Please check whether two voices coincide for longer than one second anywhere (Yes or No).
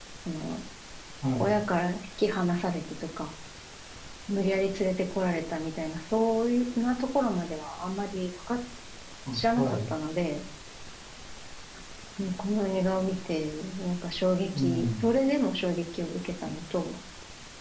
No